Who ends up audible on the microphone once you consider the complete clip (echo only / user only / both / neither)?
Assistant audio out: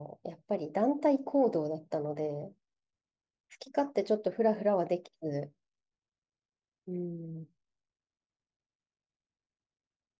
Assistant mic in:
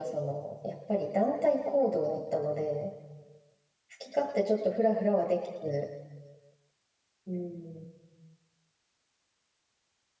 echo only